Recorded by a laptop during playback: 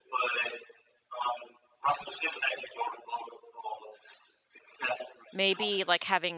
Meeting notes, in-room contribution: present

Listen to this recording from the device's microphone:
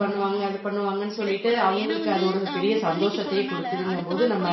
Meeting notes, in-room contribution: present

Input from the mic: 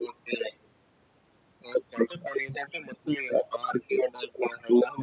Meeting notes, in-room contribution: none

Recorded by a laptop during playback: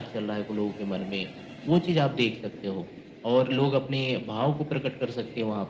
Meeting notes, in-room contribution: none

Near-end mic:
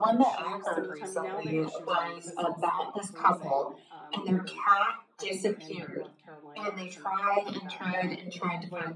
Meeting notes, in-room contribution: present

